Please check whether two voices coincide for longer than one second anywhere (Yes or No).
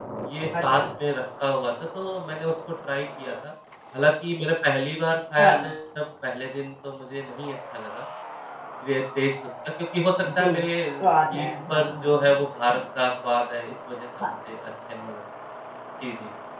Yes